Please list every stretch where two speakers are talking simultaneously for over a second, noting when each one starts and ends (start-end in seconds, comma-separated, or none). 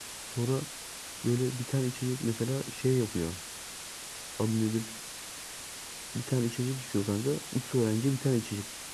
none